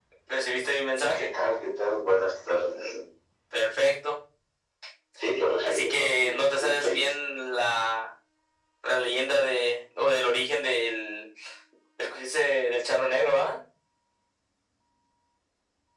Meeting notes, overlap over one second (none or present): present